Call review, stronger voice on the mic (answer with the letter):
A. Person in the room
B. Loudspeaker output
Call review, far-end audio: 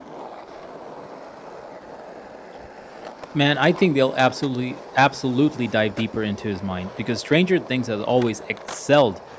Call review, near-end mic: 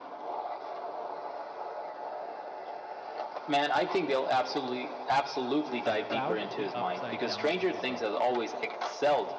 B